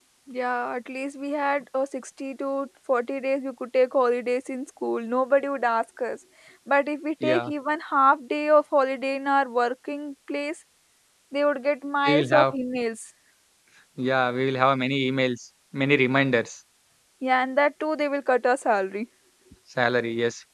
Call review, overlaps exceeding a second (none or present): none